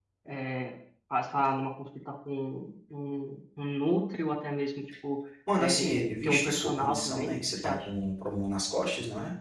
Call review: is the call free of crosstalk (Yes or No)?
No